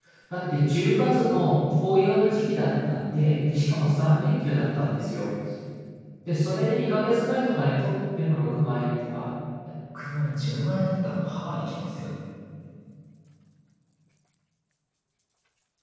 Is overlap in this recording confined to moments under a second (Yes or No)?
Yes